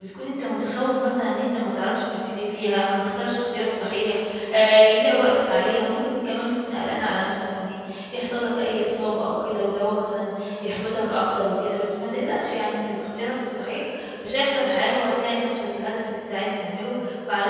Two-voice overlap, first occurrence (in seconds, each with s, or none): none